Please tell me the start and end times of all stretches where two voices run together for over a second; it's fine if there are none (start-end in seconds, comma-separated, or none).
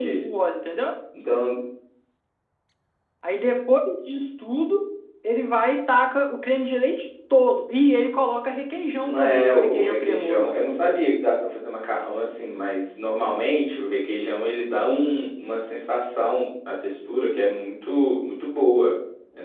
9.1-10.5